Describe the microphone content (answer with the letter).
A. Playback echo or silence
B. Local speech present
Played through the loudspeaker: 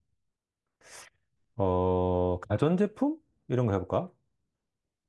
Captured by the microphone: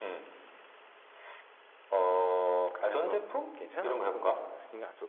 B